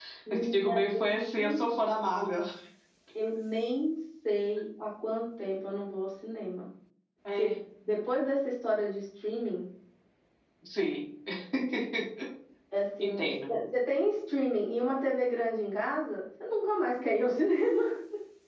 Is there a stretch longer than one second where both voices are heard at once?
Yes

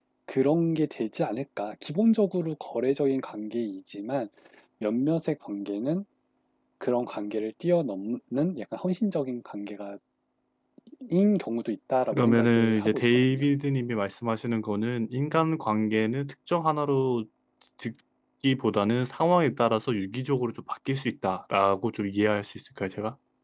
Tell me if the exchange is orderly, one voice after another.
No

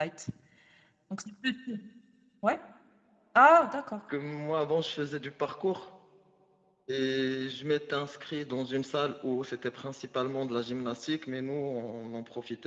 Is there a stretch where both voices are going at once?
No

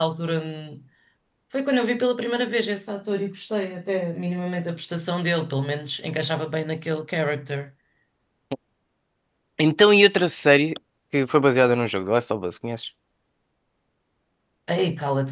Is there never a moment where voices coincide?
Yes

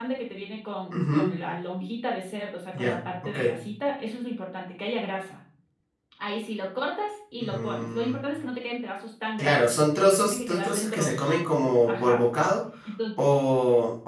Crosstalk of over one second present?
Yes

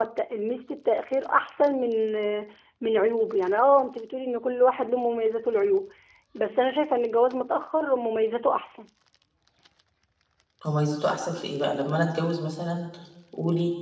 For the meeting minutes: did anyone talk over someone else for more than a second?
No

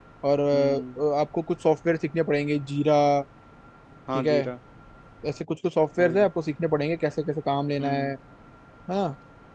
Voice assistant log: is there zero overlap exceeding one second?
Yes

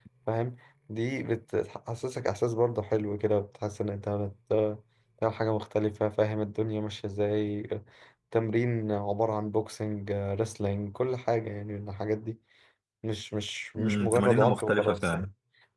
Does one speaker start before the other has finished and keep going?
Yes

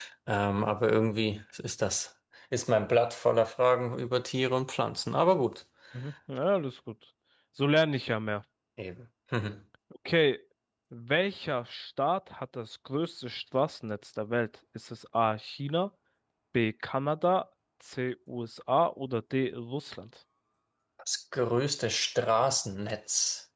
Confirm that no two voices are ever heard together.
Yes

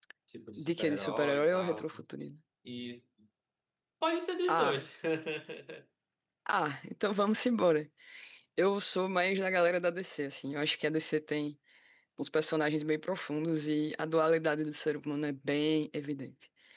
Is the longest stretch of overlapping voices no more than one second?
No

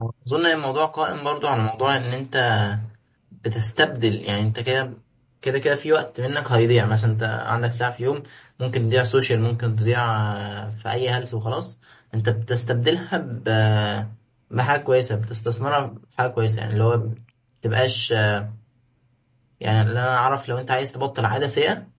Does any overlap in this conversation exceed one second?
No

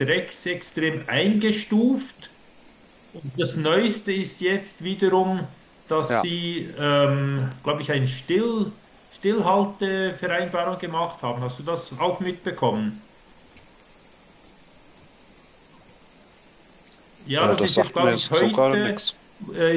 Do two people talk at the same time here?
Yes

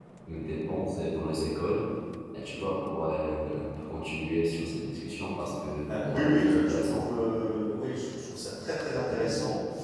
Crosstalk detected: Yes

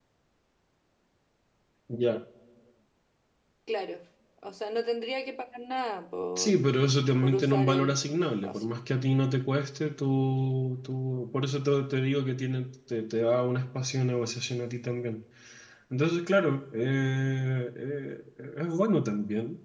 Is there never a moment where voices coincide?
No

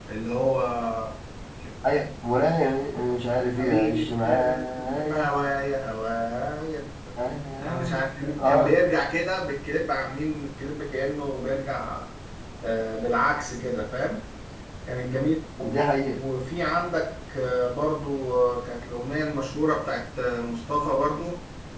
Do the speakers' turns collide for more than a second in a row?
Yes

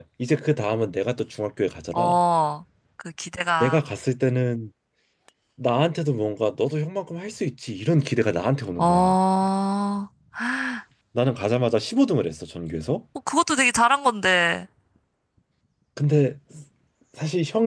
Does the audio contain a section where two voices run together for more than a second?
No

